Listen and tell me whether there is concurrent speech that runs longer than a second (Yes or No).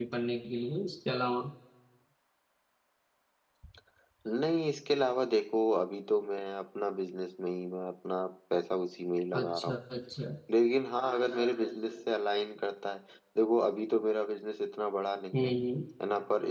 No